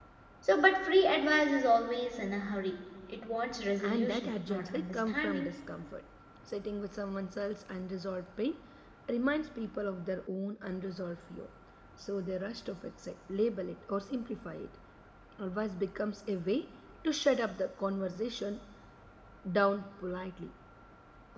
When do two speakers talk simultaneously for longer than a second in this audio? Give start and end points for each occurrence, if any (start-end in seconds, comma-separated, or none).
3.8-5.5